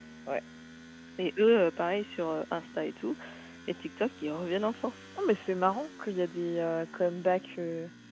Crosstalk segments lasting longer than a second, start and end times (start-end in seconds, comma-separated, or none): none